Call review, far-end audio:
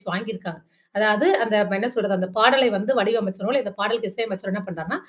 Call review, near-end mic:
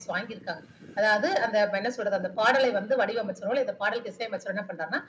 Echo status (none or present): present